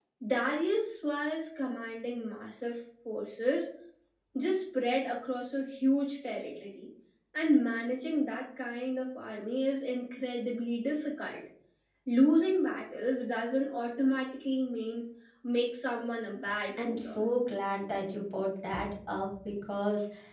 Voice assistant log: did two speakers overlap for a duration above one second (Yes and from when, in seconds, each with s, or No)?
No